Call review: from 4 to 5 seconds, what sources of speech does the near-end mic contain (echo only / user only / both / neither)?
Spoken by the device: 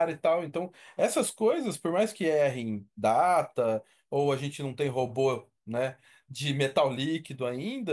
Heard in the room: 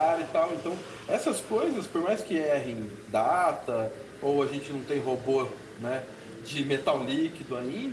echo only